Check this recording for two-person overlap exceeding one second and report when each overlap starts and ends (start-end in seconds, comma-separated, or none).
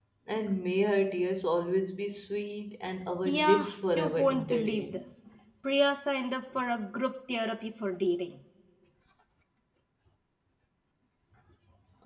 3.2-5.0